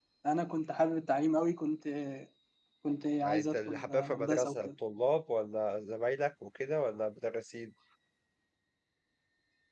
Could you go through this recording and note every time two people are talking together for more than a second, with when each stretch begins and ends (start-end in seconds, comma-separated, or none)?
3.2-4.7